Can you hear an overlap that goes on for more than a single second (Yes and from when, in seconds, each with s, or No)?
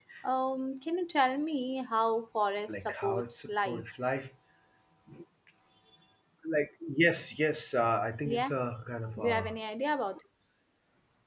Yes, from 2.7 s